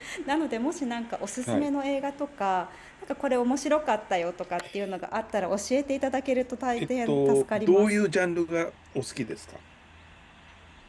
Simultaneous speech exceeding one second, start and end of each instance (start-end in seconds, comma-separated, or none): 6.8-8.0